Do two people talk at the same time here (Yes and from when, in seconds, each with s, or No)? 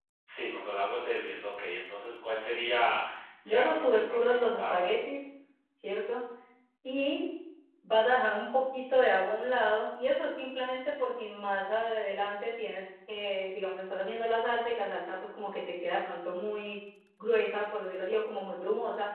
Yes, from 3.5 s